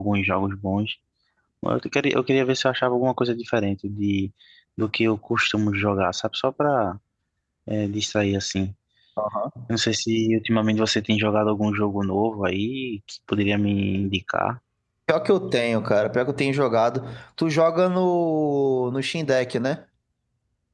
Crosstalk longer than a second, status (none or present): none